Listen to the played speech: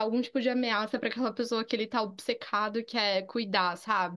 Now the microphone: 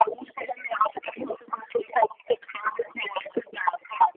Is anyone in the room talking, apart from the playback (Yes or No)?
No